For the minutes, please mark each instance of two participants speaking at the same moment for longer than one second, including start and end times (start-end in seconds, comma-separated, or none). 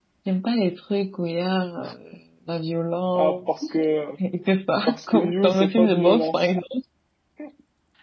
4.9-6.5